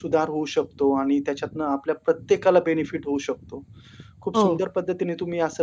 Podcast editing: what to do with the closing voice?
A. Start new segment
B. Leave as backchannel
B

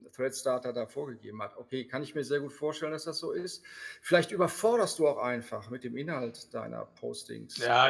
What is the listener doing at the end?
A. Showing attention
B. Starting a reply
B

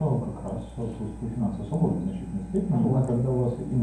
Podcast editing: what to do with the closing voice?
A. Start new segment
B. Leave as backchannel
B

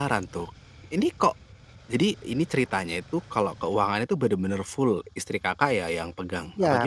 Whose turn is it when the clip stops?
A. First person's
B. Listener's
B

